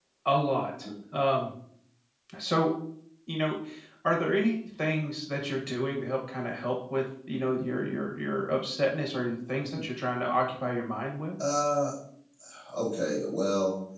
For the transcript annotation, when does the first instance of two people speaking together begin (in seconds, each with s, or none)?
none